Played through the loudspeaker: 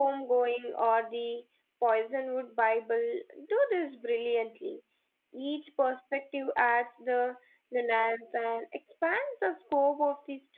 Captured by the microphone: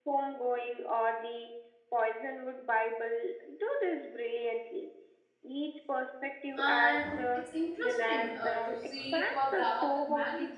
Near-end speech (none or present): present